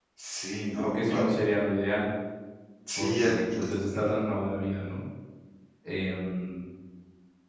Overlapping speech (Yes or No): Yes